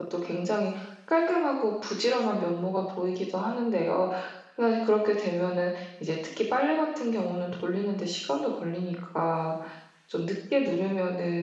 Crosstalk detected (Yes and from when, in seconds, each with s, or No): No